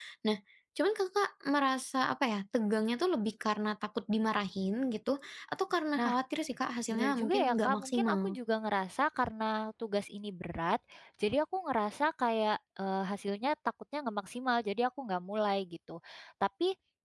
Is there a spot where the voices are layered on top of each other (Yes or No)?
Yes